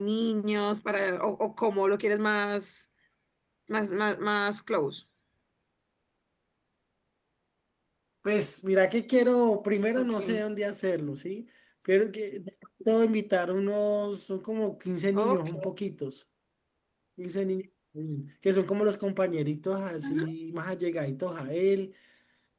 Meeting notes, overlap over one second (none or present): none